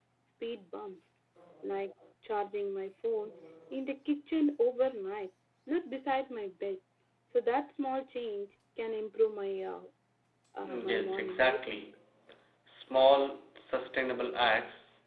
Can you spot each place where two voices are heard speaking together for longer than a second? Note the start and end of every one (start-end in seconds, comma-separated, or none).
10.6-11.8